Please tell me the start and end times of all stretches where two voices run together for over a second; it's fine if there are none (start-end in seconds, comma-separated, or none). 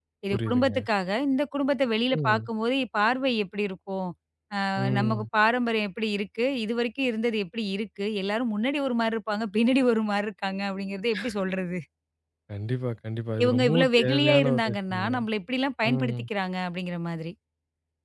13.4-15.2